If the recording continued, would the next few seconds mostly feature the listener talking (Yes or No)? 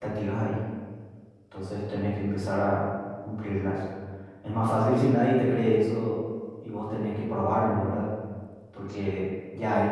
No